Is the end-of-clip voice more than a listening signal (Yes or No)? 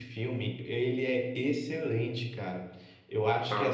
No